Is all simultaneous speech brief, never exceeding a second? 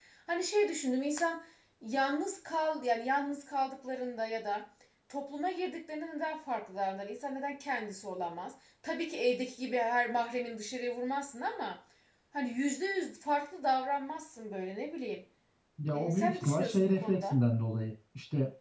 No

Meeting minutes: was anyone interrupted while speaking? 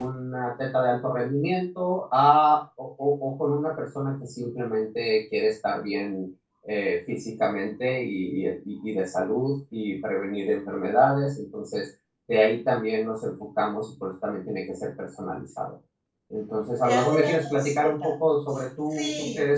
Yes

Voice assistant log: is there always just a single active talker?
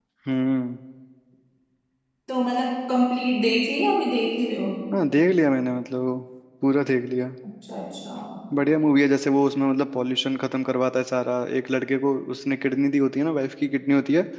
Yes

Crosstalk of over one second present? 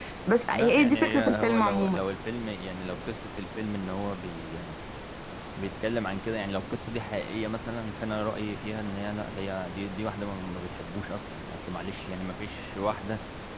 Yes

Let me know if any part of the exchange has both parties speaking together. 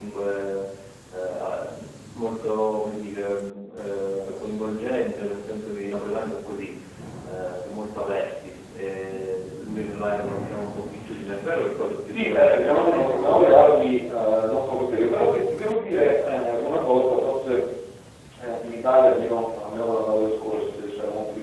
Yes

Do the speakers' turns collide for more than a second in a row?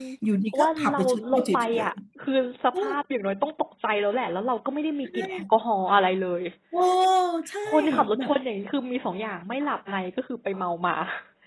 Yes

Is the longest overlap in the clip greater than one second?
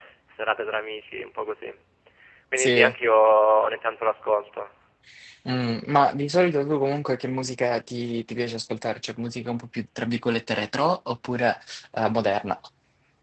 No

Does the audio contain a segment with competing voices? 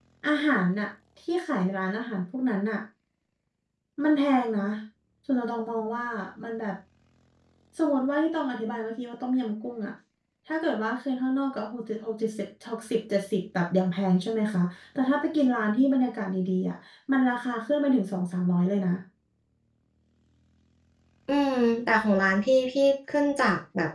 No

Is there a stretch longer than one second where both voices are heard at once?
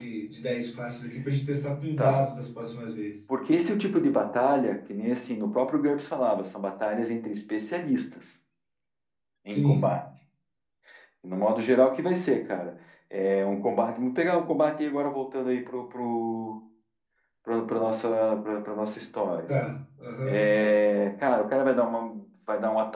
No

